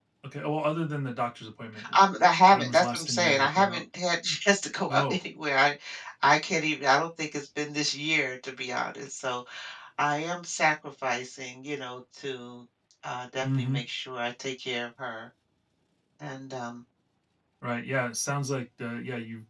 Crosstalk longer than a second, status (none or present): present